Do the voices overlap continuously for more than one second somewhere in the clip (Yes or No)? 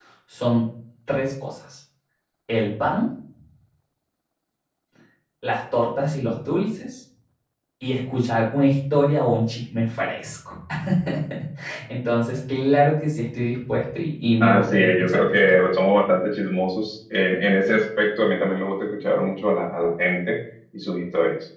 Yes